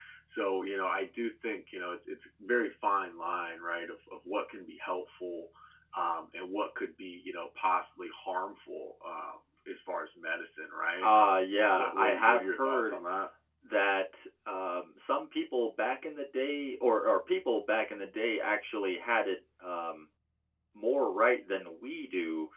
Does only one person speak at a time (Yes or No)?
No